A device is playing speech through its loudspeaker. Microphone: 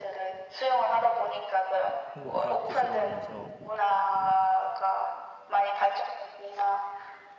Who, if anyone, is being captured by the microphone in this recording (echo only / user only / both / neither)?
both